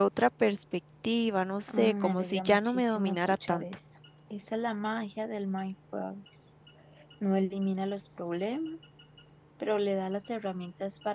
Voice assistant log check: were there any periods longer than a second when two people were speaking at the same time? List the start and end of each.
1.7-3.6

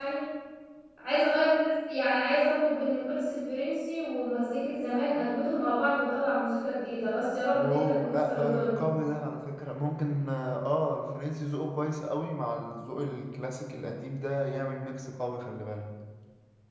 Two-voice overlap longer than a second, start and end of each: 7.5-8.8

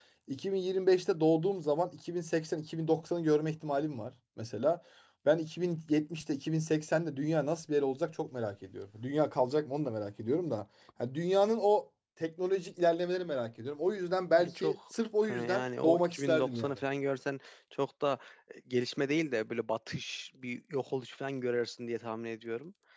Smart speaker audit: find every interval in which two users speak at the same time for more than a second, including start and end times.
15.3-16.8

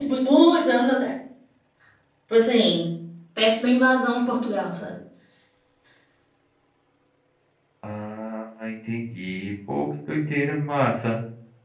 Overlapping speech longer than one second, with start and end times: none

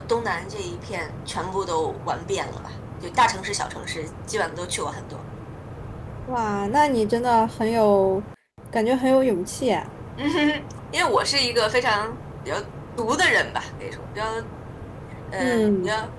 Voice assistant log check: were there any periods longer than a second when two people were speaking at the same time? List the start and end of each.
none

